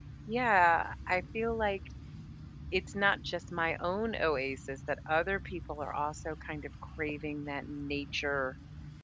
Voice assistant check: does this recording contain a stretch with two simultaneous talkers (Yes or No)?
No